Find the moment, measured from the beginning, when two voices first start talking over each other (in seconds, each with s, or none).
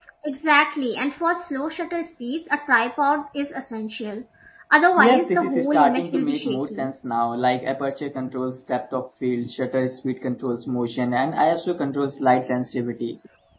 5.0 s